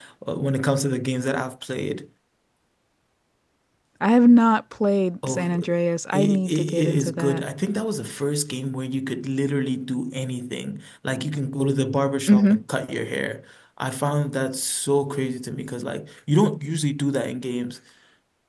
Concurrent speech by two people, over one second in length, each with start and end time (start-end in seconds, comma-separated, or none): 6.1-7.5